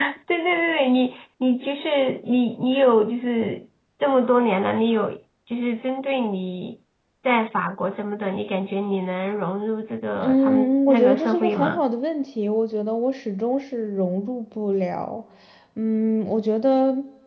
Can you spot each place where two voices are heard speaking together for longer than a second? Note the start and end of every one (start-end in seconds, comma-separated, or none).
10.2-11.8